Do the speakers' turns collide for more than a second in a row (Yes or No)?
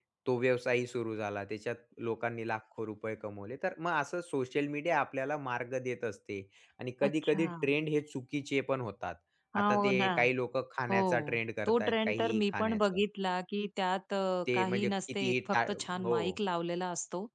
Yes